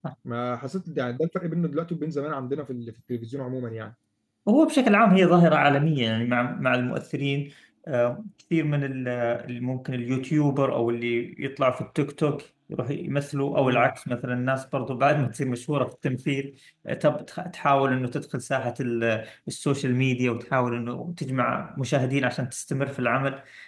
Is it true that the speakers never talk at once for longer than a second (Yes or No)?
Yes